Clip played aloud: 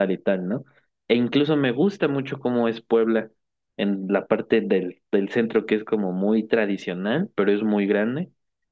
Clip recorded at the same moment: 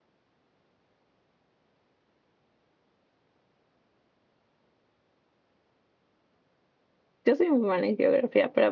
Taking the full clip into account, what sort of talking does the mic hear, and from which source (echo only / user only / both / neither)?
user only